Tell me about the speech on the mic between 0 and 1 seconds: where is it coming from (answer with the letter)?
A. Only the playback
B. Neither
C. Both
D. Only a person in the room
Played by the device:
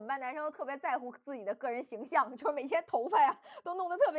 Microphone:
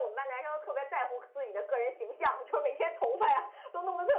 A